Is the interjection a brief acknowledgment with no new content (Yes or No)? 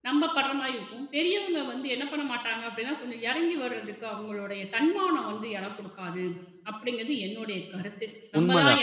No